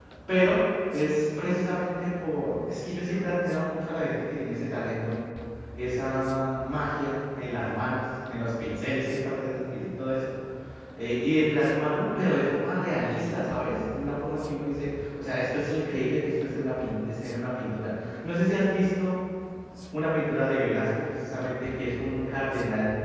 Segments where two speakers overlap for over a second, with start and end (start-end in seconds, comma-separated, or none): none